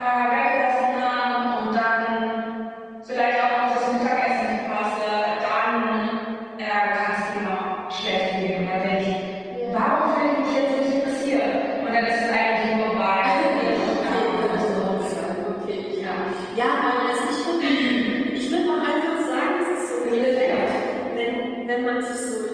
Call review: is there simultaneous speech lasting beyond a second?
Yes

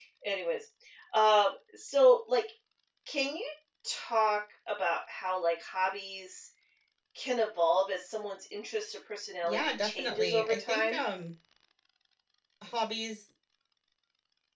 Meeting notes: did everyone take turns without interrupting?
No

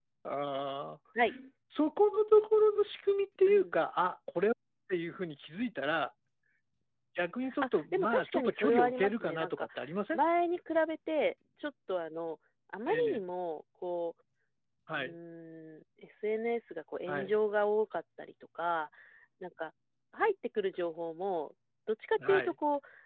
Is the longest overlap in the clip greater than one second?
Yes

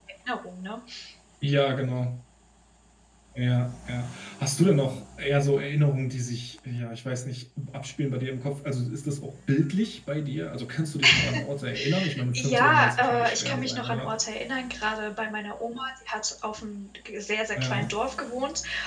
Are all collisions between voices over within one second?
No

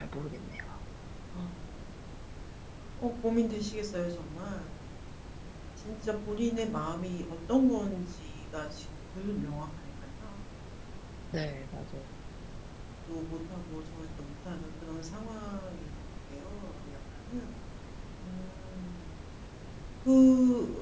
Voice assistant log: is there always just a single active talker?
Yes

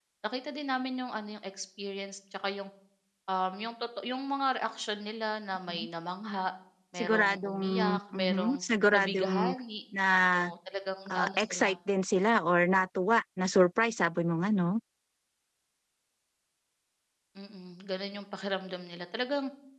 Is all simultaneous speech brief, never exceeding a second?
No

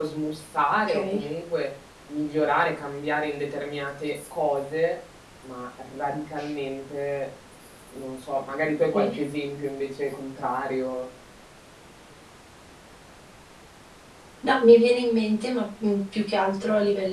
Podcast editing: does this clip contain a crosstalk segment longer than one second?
No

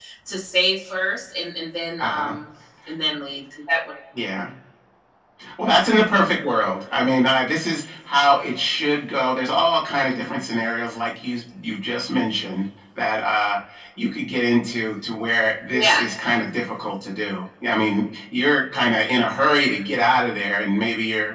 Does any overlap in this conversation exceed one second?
No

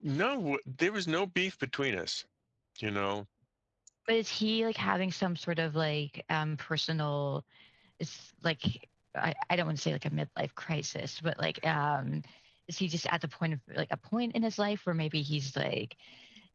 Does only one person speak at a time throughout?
Yes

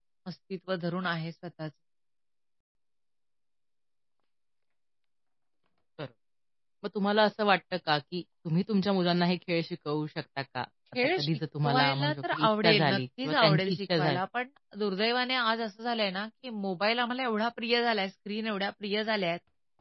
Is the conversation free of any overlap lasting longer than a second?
No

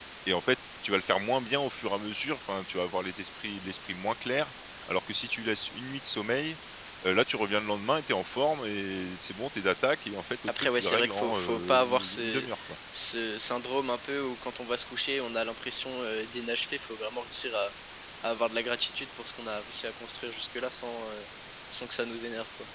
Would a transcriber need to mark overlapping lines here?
Yes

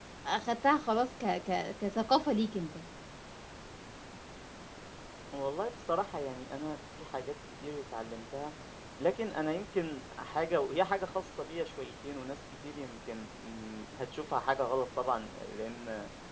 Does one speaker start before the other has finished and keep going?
No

